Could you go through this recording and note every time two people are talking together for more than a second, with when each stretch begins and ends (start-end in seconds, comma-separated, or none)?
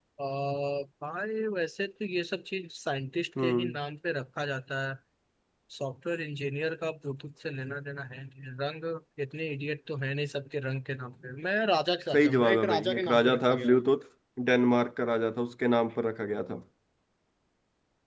12.1-13.7